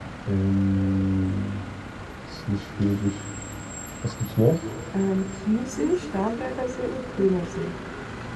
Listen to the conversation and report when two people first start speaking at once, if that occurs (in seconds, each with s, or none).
none